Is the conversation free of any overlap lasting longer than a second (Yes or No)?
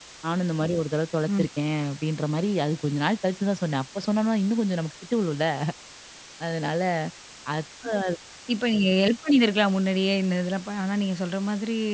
Yes